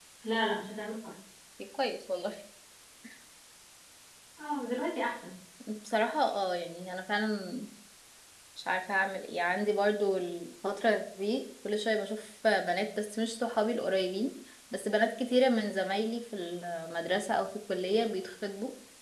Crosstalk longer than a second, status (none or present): none